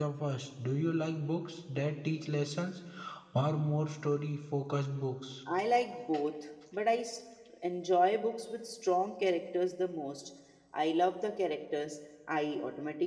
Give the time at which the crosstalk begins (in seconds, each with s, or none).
none